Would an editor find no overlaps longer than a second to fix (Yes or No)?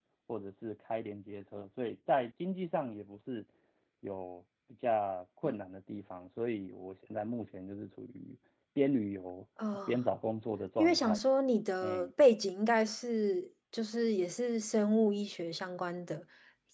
Yes